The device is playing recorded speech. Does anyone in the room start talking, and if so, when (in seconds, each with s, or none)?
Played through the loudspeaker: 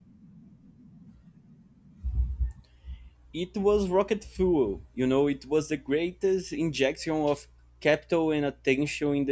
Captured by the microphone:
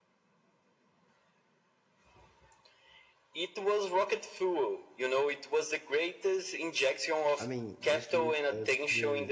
7.4 s